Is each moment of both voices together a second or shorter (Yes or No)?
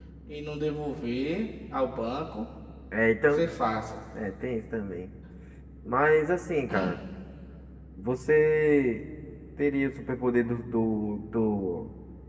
Yes